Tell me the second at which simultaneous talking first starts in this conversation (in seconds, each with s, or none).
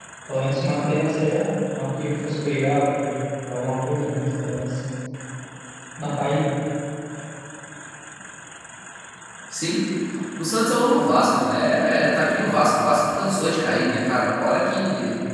none